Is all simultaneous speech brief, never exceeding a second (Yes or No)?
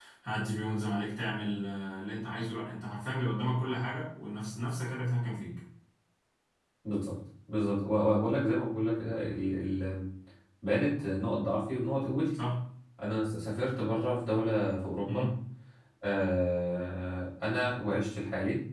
Yes